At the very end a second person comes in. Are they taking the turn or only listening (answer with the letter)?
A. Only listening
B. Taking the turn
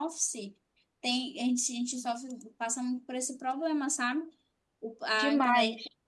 A